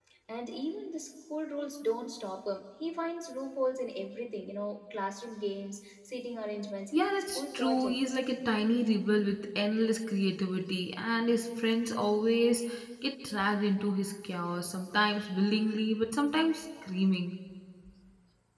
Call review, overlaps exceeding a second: present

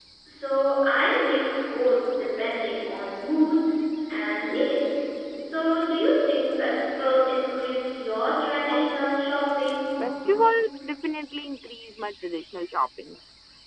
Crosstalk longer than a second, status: none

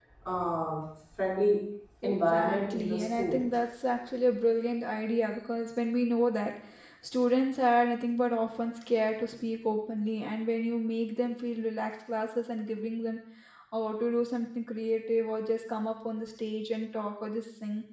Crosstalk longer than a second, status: present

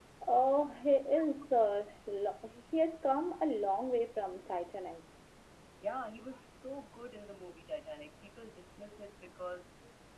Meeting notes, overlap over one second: none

